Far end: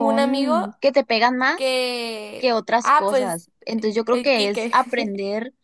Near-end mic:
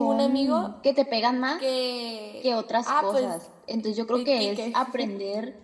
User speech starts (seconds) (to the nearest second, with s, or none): none